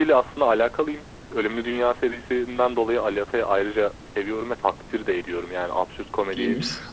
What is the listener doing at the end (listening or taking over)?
listening